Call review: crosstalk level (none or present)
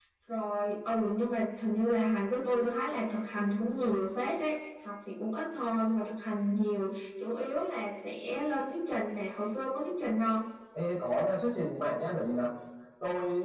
none